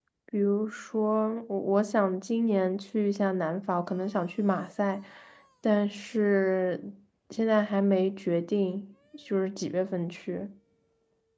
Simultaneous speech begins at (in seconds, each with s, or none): none